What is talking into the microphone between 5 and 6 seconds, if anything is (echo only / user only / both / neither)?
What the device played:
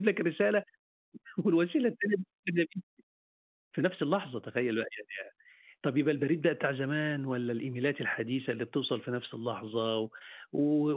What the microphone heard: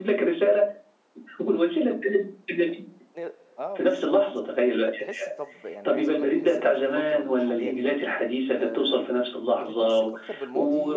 both